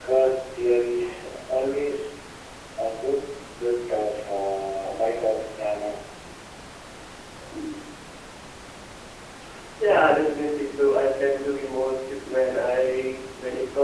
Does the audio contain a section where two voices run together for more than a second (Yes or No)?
No